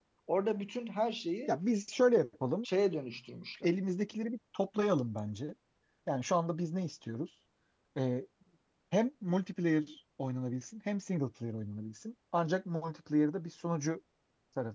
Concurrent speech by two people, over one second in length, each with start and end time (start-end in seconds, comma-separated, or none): none